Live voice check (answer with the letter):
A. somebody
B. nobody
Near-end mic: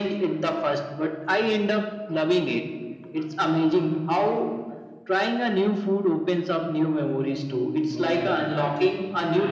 A